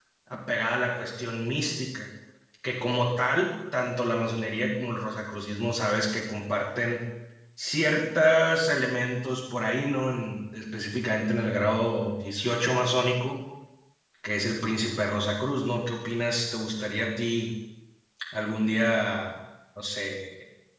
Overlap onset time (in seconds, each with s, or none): none